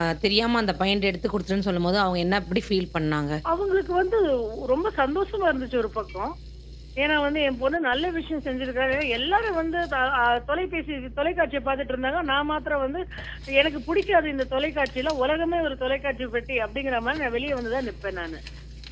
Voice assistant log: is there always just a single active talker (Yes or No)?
Yes